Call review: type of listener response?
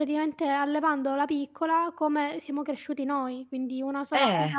listening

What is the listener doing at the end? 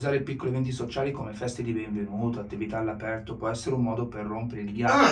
taking over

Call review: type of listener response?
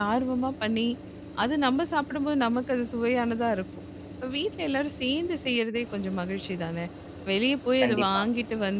listening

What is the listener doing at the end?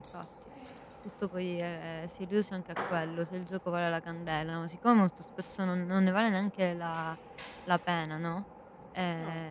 listening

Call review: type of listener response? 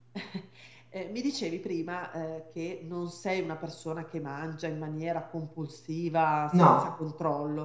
listening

